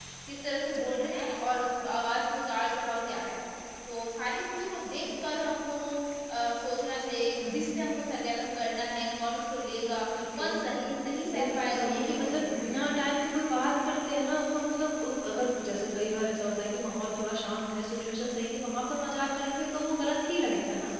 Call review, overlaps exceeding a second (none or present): present